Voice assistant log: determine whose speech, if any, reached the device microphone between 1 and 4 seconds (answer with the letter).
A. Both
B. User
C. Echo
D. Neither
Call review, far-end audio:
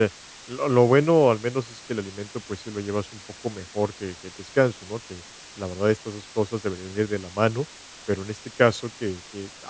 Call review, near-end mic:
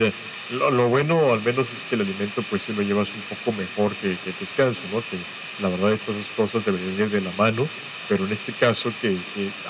C